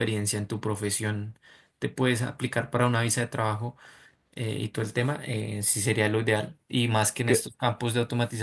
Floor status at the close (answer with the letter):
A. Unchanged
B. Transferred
A